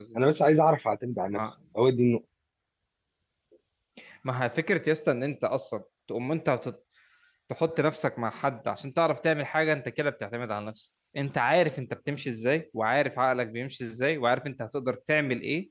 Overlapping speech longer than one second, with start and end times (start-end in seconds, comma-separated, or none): none